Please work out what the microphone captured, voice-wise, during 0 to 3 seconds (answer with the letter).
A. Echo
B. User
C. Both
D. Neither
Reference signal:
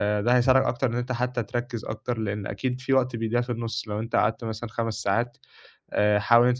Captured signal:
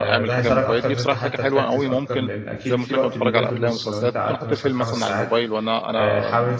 C